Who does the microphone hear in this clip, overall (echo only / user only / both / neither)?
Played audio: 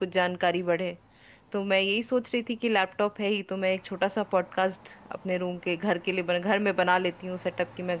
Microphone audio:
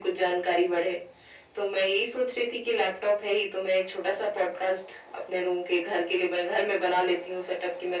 echo only